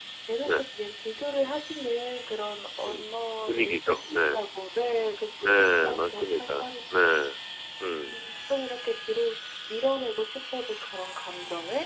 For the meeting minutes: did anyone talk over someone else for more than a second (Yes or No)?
Yes